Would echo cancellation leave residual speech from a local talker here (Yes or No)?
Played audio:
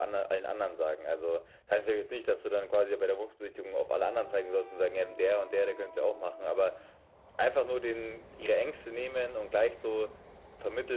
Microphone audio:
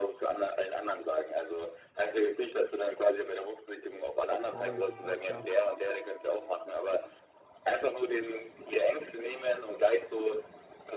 Yes